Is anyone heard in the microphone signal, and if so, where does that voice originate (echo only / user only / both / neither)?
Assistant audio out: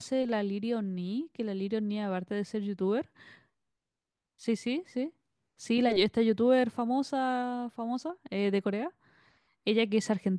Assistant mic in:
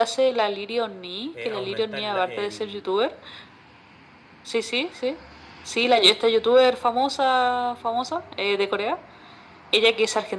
both